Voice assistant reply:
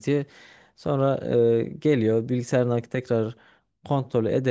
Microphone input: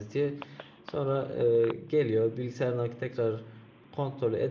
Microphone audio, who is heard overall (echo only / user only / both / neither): echo only